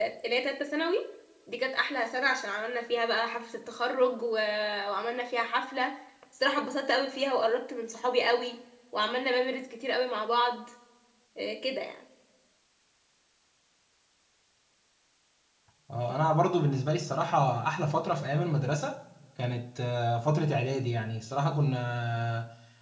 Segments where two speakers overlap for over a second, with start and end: none

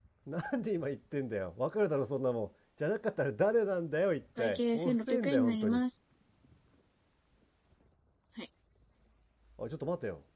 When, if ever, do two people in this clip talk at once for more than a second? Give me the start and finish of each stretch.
4.4-5.8

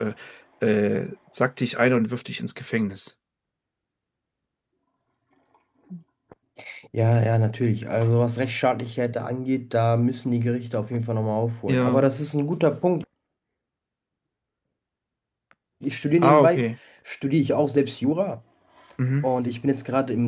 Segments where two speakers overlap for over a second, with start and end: none

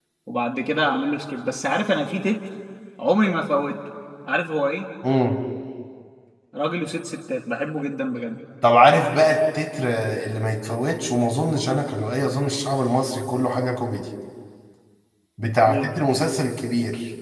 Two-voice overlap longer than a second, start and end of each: none

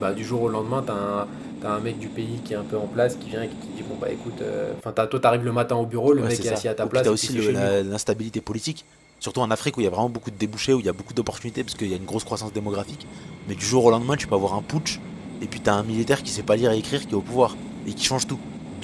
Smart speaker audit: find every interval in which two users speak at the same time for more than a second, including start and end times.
6.2-7.8

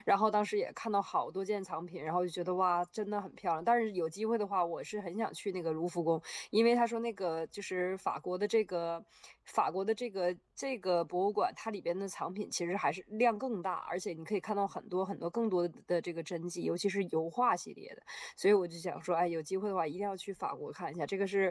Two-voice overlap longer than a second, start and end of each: none

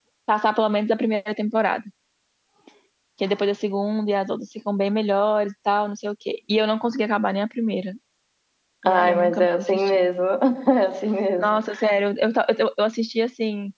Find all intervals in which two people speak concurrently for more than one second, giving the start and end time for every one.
8.9-10.1

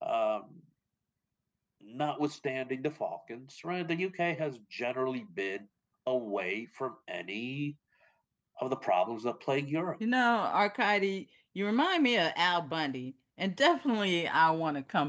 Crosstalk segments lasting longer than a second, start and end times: none

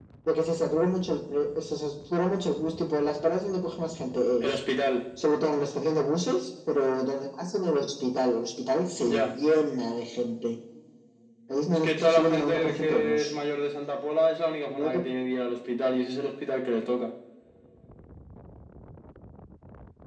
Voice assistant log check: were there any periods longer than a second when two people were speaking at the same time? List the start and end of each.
11.7-13.3

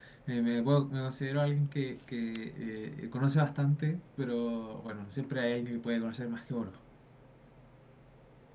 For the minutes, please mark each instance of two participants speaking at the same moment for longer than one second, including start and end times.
none

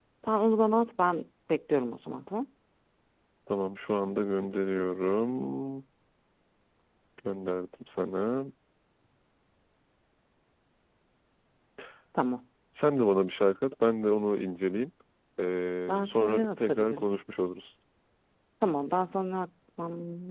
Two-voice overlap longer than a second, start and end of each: 15.9-17.2

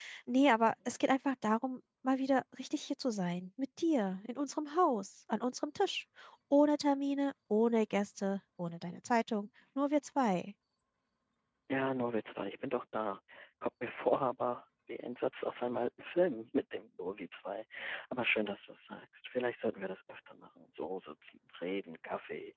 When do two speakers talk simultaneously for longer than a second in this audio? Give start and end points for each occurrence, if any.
none

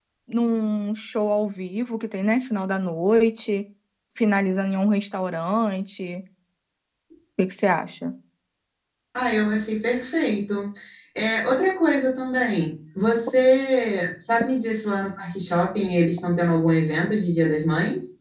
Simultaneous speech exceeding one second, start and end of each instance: none

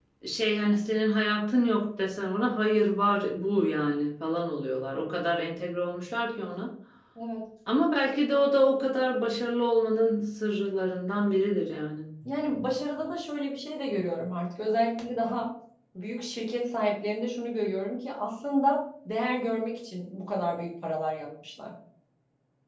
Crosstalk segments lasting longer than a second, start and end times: none

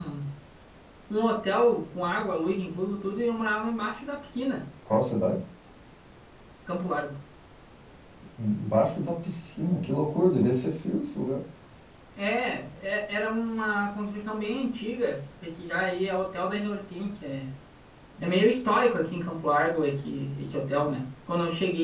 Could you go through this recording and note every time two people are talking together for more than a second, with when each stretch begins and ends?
none

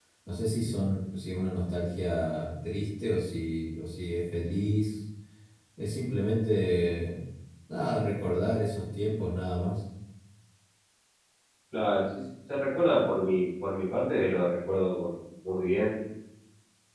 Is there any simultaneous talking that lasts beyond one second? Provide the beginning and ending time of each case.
none

